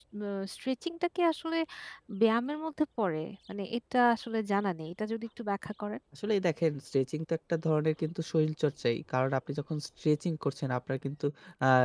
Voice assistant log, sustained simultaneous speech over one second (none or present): none